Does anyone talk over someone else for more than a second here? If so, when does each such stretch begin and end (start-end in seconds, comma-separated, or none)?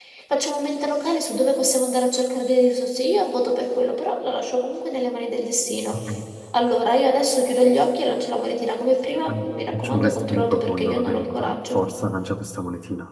9.7-11.8